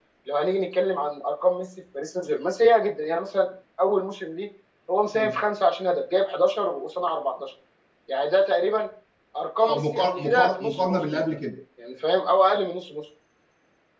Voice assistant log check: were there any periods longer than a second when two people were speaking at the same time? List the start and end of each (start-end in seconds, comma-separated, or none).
9.6-11.2